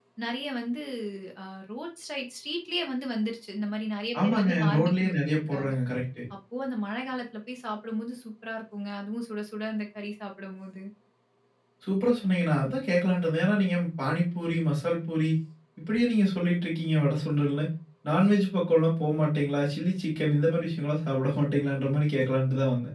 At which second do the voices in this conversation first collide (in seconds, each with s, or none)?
4.1 s